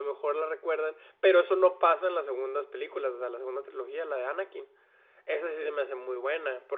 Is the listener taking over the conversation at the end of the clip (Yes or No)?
No